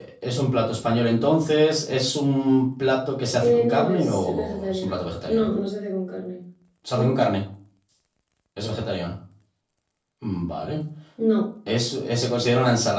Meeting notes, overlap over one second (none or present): present